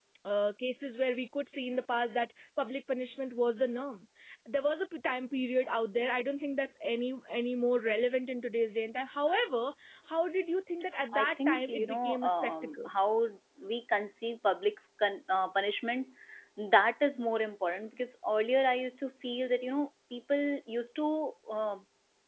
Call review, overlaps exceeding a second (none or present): present